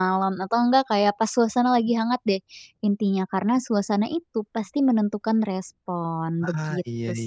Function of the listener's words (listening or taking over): taking over